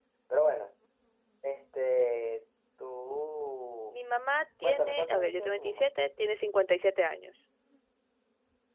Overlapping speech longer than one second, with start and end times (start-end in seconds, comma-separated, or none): 4.6-5.9